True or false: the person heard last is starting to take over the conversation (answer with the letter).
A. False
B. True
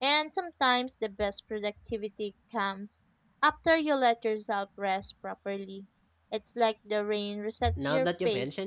B